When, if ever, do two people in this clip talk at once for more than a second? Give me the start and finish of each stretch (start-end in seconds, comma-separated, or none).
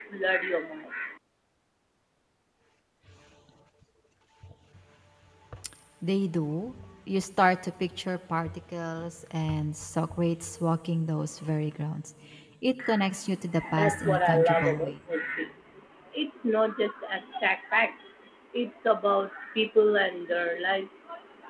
13.8-15.0